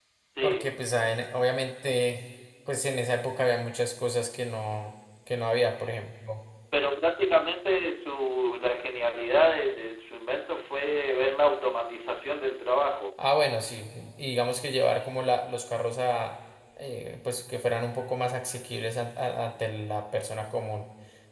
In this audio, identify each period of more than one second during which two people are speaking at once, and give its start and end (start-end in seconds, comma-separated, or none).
none